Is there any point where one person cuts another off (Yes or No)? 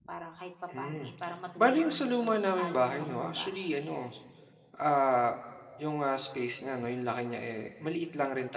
Yes